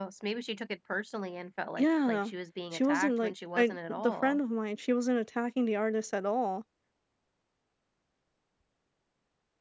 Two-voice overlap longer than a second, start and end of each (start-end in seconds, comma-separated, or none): 2.7-4.4